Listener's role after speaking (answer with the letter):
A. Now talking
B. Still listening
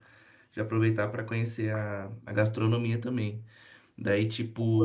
B